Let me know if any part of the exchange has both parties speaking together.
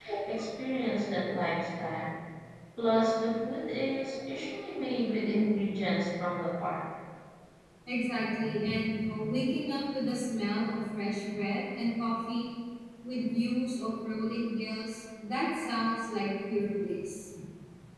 No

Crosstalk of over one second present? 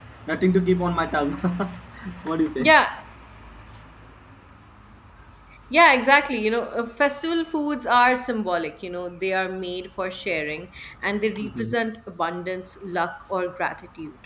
No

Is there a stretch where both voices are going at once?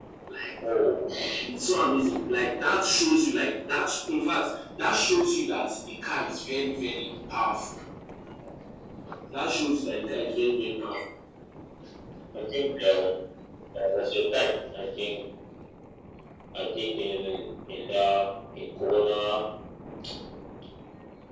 No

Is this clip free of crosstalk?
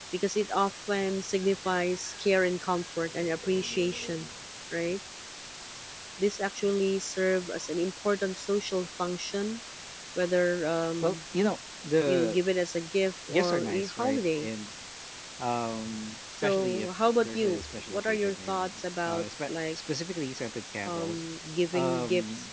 No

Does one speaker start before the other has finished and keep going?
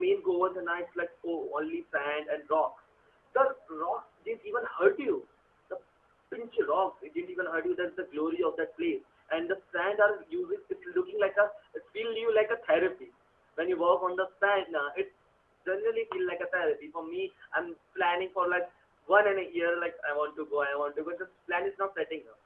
No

